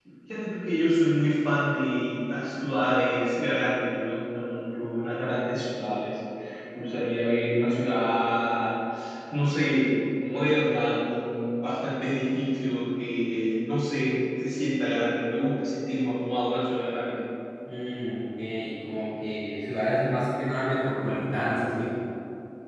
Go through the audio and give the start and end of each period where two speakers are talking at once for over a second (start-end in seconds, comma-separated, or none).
none